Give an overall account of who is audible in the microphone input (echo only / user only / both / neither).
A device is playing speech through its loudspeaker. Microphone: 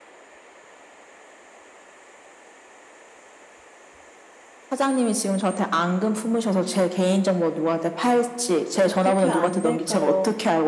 both